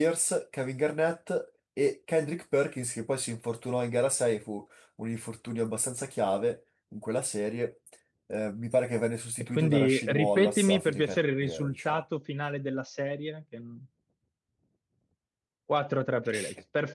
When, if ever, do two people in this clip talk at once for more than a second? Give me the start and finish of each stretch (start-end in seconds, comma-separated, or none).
9.6-12.0